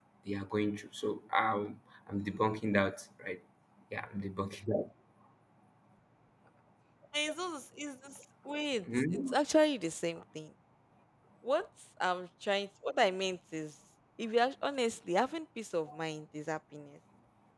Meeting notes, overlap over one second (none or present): none